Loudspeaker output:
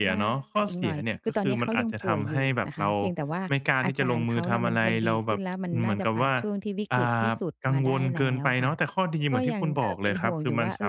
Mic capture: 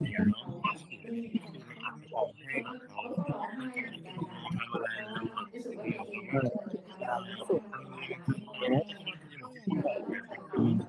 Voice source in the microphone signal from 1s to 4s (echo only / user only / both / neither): both